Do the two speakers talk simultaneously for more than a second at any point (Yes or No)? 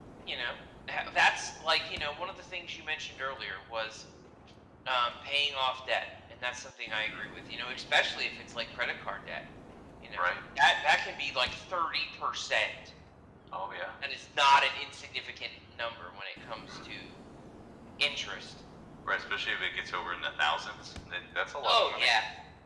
No